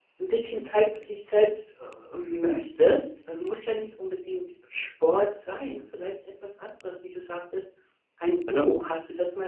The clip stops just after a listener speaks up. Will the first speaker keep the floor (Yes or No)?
Yes